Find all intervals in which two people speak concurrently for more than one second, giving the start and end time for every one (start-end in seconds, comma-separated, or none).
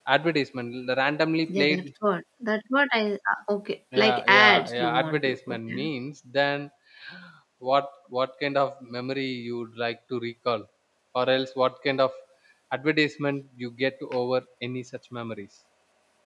4.0-5.9